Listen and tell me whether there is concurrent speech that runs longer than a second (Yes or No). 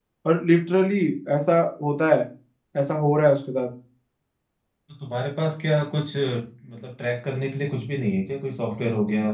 No